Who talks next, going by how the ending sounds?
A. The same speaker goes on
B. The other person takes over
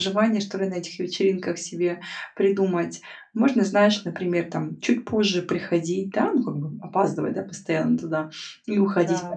A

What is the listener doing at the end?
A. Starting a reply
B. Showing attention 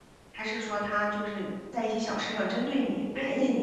A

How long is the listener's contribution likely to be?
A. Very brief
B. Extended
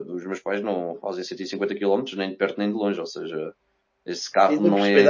B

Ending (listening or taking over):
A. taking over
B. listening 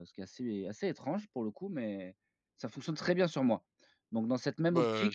B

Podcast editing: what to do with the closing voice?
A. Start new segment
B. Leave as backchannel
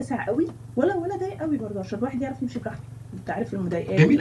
A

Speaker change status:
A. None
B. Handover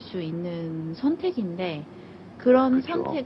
A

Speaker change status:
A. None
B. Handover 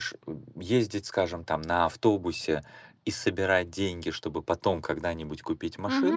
A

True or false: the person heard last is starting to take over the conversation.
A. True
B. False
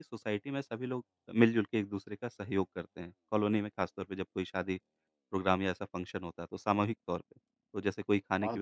B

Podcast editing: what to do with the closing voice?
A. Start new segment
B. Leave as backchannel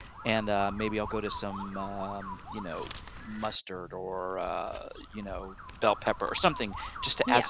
B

